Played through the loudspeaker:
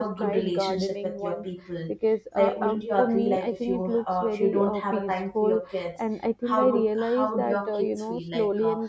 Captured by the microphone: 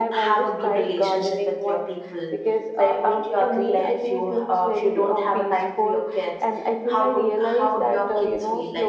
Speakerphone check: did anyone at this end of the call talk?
No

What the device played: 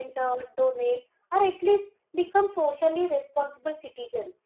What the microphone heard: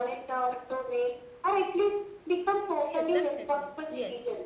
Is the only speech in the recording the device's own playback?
No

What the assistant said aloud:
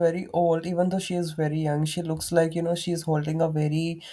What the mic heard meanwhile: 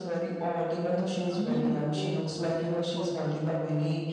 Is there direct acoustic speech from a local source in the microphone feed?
Yes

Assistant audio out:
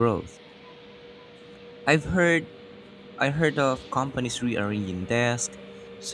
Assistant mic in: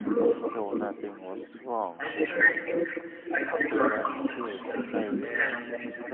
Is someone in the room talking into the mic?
Yes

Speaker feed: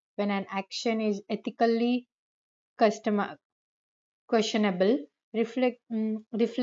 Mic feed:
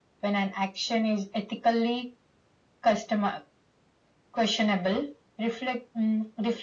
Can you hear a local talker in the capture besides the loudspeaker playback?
No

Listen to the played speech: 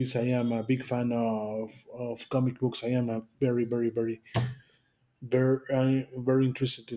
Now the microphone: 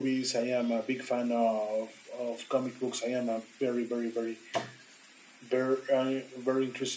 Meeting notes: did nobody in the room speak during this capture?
Yes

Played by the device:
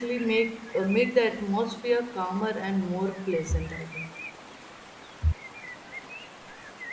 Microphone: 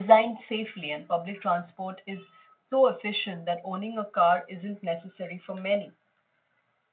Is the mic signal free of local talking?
No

